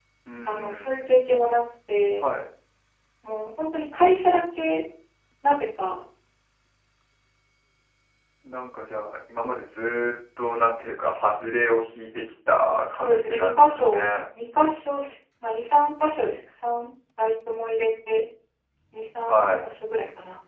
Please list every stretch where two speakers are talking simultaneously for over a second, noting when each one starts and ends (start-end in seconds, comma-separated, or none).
12.9-14.1